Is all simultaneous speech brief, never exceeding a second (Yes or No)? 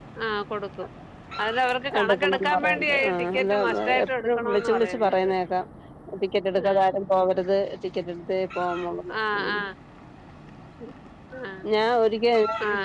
No